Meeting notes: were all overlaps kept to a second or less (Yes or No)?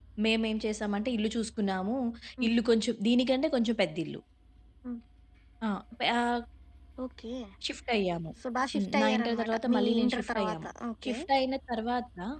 No